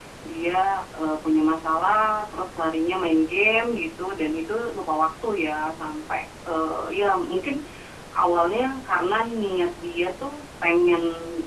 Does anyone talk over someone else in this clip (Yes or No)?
No